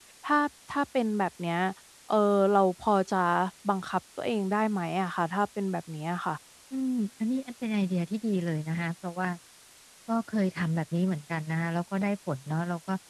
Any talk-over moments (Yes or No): No